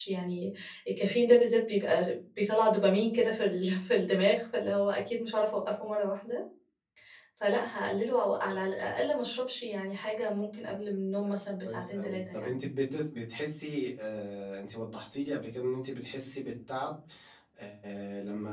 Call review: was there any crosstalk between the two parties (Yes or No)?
Yes